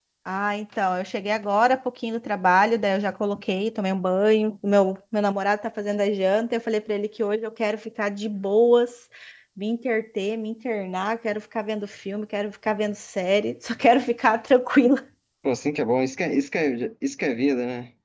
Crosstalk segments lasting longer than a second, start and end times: none

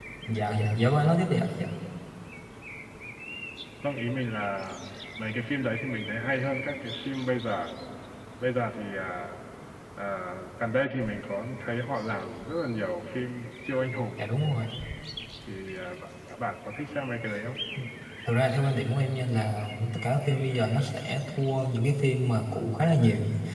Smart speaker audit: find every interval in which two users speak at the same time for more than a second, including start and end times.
none

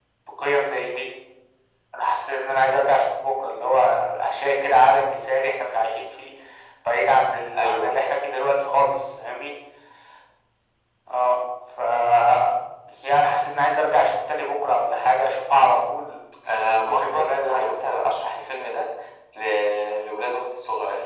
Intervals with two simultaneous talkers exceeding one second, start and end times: 16.5-17.7

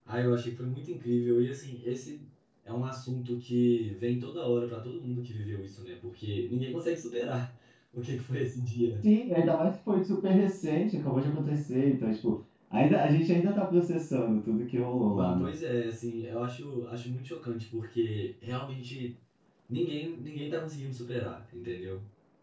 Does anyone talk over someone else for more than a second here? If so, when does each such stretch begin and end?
none

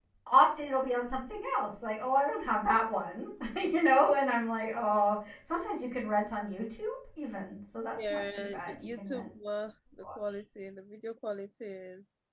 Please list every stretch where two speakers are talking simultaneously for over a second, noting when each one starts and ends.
8.0-9.3

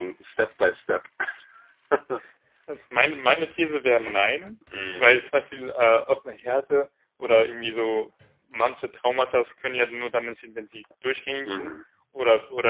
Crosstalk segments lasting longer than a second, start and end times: none

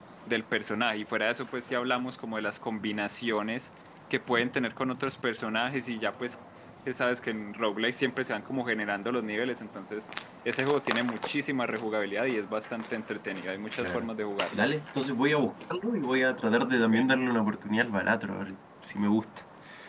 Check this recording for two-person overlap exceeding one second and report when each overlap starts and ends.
none

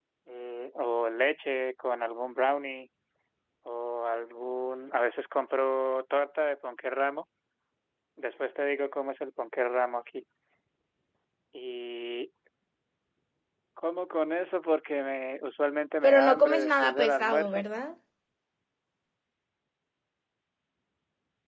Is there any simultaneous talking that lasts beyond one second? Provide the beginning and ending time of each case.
16.0-17.6

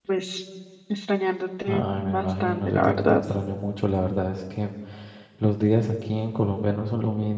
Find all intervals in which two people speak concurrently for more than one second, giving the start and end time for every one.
1.7-3.2

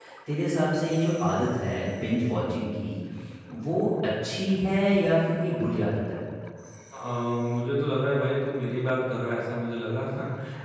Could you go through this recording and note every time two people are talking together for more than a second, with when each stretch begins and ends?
none

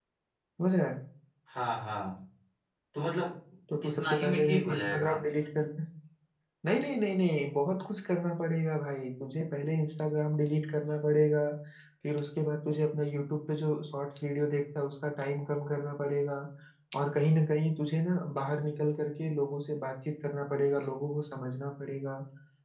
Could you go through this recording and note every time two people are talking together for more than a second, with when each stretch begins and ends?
3.8-5.1

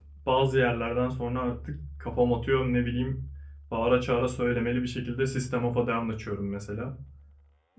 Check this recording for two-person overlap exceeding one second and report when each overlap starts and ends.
none

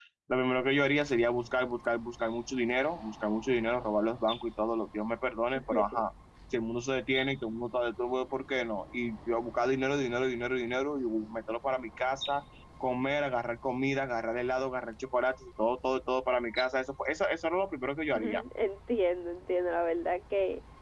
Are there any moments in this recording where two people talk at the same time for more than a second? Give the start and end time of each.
none

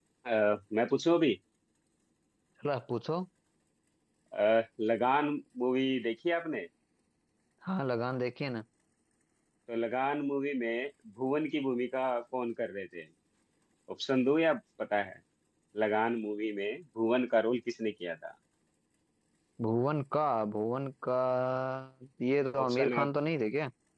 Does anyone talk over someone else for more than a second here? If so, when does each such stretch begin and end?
none

